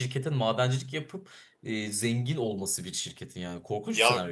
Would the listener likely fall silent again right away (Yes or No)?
No